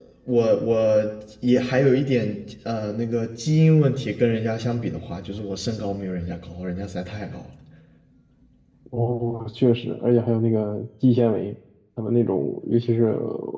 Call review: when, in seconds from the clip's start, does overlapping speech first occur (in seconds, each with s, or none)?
none